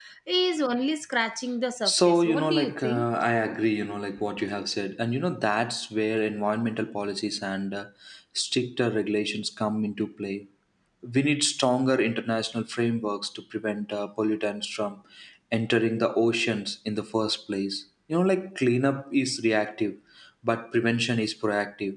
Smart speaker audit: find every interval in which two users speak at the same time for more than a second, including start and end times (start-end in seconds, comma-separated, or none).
1.9-3.0